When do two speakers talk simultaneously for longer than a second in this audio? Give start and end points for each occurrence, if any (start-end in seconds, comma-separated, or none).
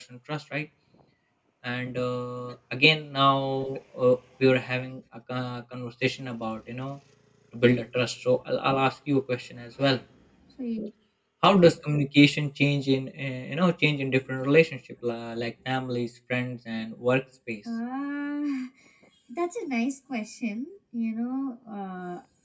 none